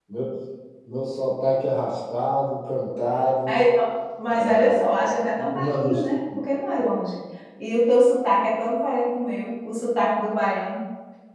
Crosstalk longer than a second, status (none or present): present